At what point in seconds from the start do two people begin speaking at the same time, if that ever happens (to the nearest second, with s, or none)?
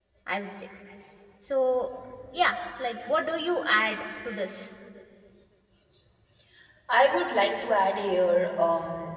none